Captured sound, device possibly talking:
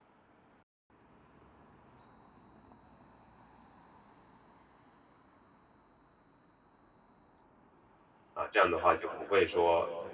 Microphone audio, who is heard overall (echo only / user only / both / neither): user only